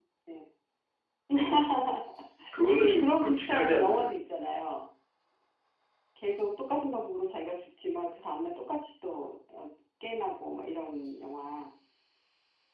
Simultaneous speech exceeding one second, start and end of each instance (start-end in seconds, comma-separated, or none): 2.8-4.0